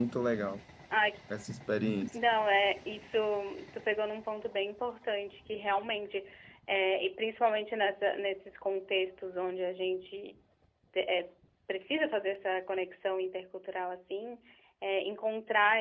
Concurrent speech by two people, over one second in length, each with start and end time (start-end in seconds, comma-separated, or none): none